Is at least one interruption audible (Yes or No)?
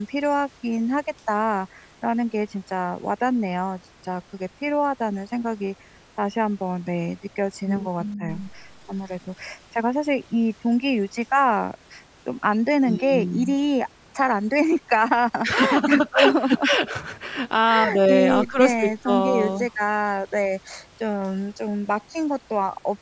Yes